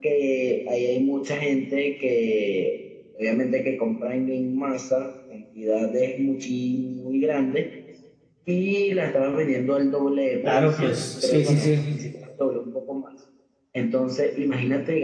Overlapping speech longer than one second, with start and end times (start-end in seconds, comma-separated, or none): 10.4-11.7